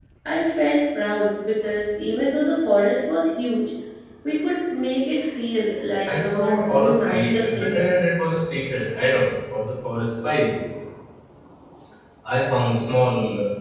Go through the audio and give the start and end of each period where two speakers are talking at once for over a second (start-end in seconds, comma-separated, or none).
6.1-8.0